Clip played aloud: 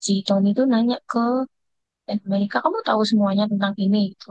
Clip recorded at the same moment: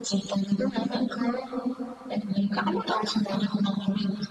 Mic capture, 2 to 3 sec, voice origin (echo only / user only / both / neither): echo only